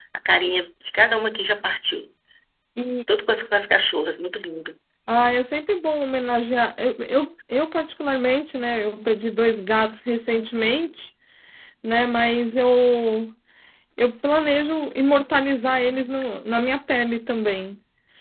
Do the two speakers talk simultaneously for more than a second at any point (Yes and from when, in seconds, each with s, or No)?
No